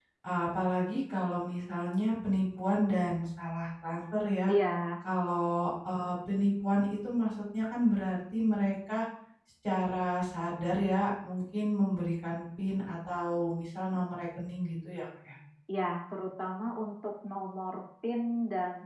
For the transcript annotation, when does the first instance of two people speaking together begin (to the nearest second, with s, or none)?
none